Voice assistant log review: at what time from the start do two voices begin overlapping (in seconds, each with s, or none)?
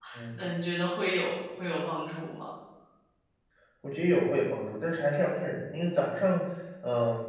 none